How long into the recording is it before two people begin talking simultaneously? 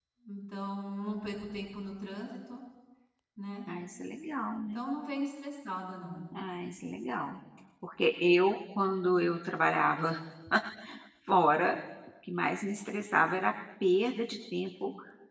none

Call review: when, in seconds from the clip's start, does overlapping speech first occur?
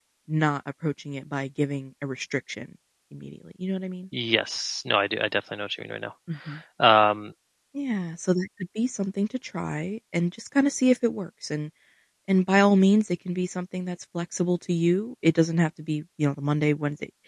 none

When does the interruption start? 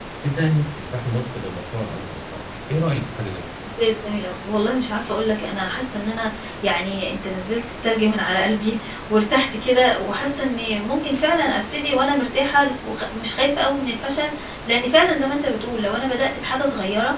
none

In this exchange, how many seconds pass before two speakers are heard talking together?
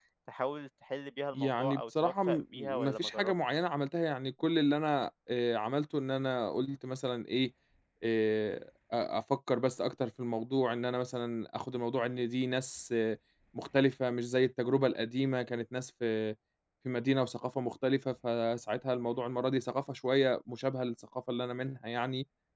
1.3 s

